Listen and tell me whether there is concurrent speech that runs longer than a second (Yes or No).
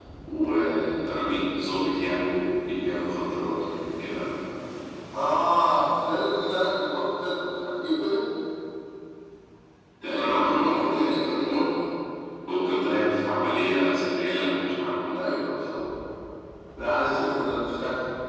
Yes